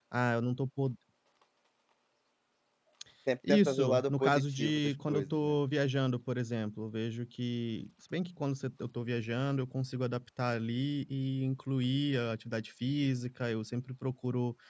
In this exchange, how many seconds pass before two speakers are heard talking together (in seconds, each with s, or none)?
3.5 s